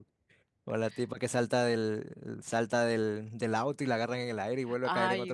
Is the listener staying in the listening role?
No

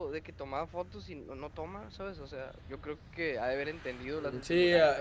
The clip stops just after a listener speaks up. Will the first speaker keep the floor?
No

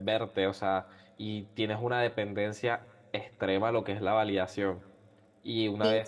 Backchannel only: Yes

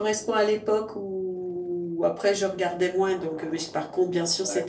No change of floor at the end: Yes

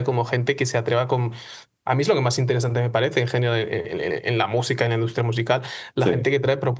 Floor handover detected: No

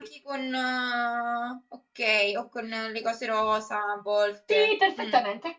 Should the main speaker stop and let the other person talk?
Yes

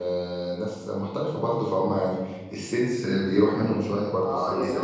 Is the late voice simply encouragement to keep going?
No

